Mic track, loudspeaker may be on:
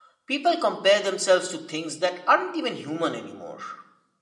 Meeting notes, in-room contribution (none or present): present